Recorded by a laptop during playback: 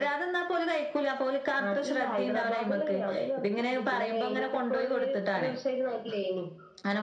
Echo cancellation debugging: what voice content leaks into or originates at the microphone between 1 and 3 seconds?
echo only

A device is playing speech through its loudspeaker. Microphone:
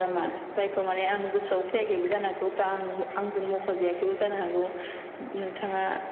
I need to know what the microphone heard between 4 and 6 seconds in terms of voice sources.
echo only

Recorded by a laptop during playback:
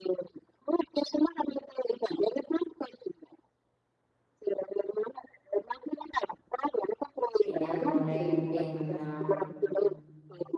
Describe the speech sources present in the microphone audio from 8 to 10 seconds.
both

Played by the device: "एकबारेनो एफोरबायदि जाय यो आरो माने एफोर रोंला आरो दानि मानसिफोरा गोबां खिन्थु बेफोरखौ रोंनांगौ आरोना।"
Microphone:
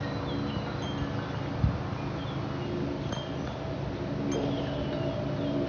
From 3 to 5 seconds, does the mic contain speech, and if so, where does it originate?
neither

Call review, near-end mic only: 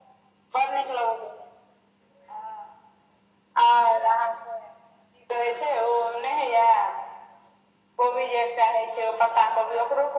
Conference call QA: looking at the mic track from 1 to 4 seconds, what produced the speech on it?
echo only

